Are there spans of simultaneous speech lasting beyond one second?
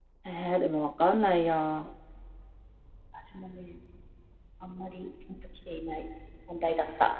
No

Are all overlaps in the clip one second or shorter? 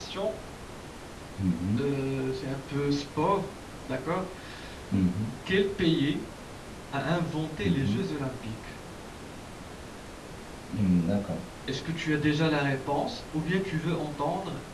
Yes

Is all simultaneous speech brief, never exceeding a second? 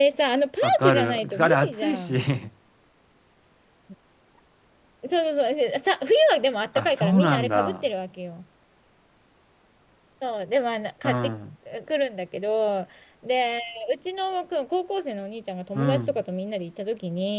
No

